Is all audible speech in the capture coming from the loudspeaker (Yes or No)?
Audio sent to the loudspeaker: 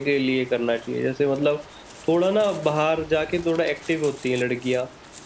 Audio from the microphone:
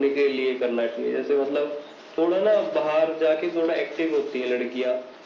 Yes